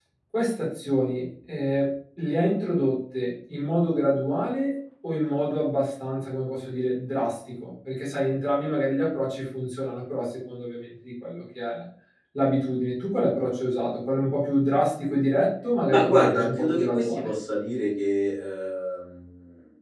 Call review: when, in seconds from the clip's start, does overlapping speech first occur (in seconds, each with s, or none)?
15.9 s